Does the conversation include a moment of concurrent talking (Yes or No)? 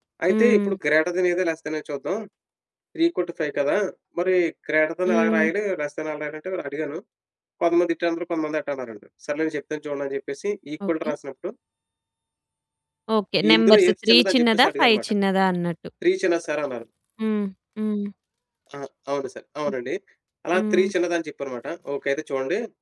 Yes